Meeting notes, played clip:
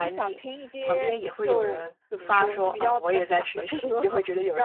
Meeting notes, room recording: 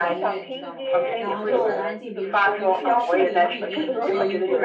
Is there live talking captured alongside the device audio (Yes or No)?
Yes